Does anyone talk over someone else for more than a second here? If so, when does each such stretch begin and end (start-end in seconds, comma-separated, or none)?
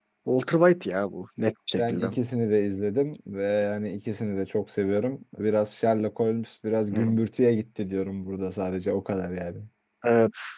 none